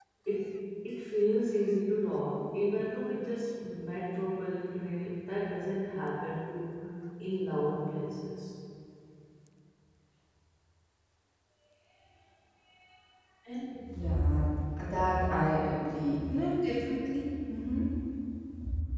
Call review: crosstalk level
none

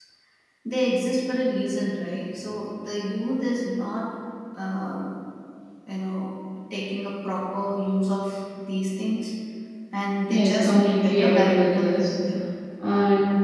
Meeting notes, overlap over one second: present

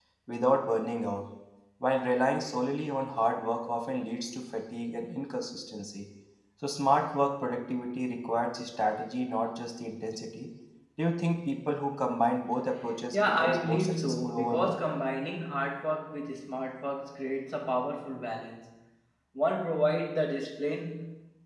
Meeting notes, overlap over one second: present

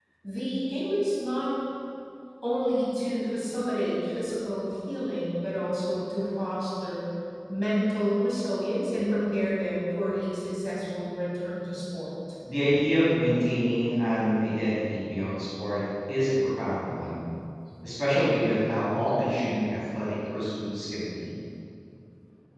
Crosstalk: none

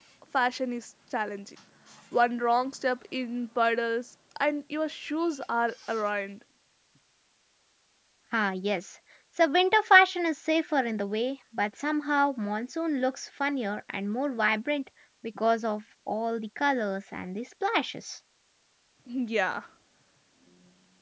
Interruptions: none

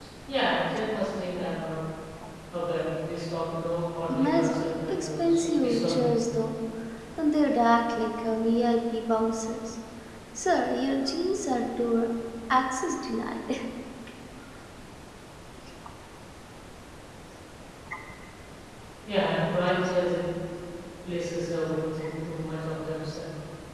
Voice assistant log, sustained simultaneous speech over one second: present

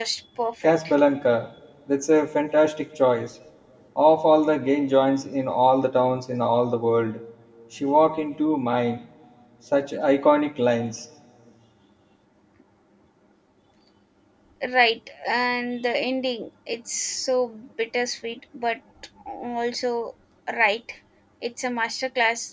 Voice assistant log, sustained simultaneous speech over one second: none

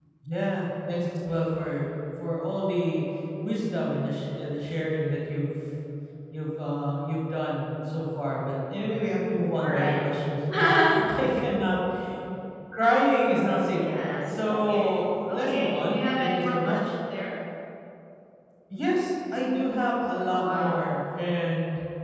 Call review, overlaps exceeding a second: present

